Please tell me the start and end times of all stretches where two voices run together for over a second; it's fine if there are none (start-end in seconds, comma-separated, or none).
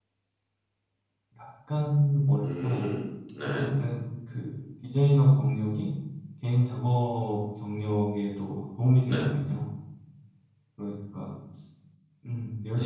none